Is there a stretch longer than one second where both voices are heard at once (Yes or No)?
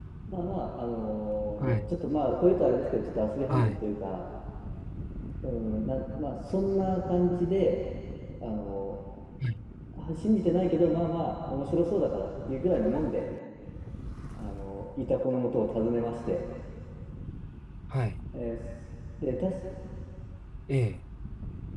No